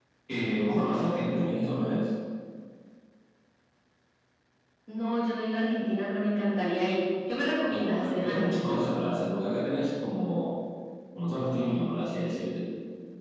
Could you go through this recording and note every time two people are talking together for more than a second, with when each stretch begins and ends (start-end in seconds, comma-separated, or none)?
7.7-8.9